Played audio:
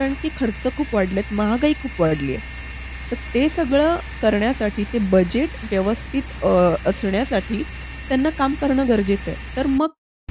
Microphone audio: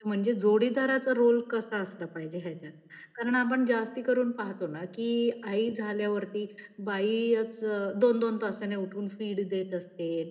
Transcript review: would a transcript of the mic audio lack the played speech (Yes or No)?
Yes